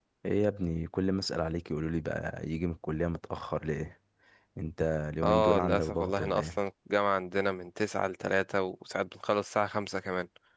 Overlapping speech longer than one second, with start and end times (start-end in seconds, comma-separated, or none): 5.2-6.6